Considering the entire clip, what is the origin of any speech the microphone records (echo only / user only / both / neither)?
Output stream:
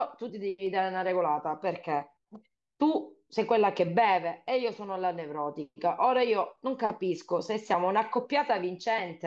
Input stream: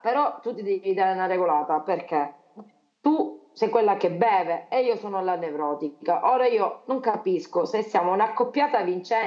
echo only